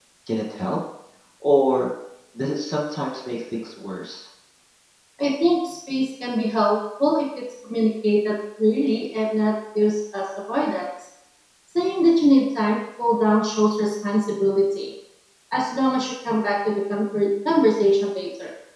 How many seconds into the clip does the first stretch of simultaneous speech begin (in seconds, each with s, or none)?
none